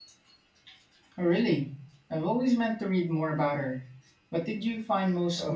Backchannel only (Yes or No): No